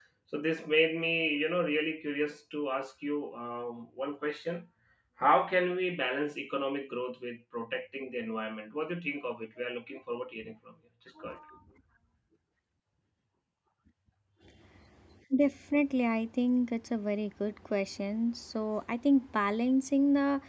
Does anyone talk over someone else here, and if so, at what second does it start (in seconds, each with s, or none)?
none